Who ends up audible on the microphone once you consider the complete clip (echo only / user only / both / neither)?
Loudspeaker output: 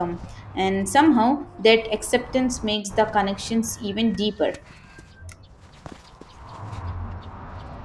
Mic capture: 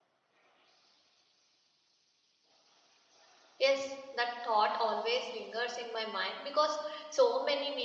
user only